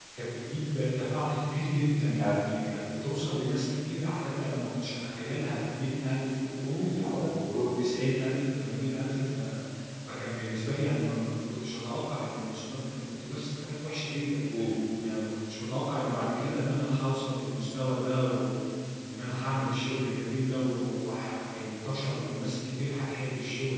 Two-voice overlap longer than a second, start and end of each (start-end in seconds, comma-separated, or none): none